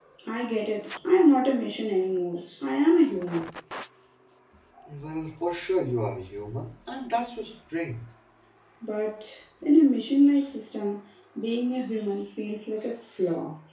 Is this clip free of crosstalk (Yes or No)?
Yes